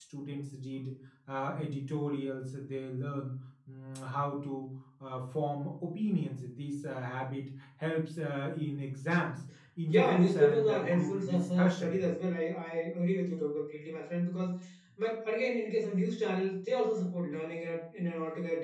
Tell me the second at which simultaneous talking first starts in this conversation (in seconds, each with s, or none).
9.9 s